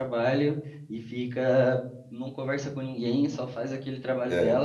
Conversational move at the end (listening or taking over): listening